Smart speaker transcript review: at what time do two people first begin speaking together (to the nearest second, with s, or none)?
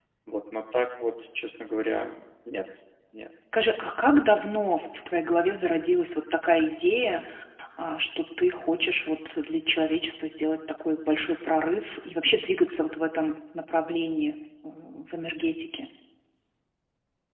none